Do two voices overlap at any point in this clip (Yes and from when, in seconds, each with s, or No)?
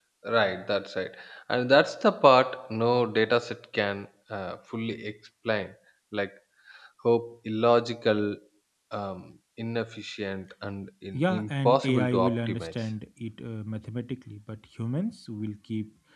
Yes, from 11.1 s